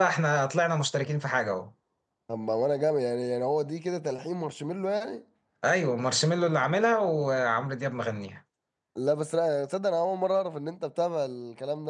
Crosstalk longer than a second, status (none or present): none